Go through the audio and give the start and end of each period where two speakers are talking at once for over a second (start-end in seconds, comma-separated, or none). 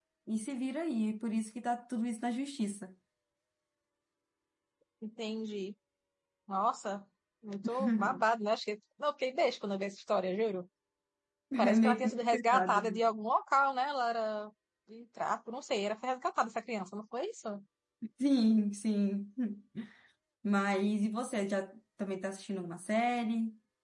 11.7-13.0